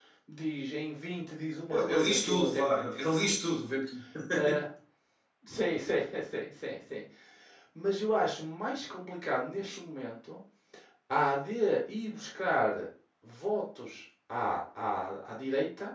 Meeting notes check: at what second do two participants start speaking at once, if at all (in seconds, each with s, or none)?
1.7 s